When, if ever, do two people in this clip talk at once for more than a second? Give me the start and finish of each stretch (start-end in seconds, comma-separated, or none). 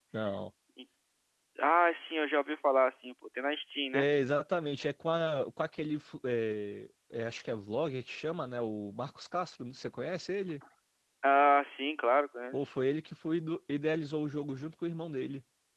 none